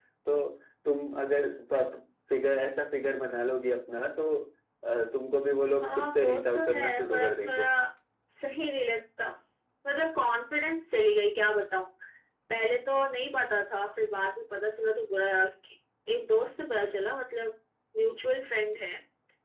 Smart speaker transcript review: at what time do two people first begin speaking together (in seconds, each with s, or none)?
5.8 s